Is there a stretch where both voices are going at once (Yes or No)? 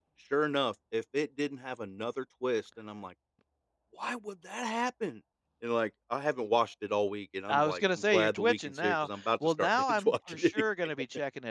Yes